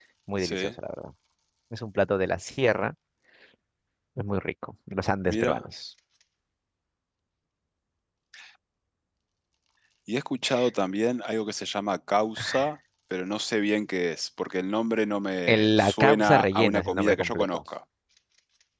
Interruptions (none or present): present